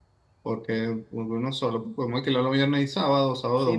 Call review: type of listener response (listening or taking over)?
taking over